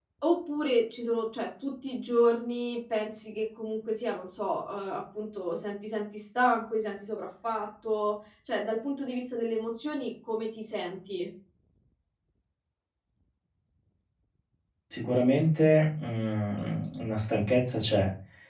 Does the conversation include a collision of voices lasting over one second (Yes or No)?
No